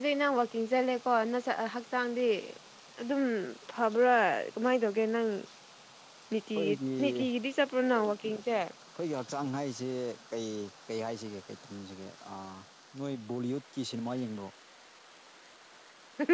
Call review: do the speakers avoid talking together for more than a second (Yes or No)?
Yes